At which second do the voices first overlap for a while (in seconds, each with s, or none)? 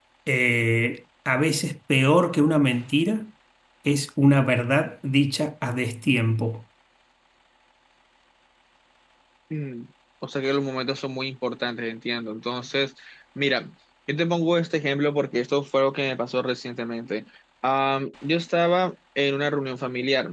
none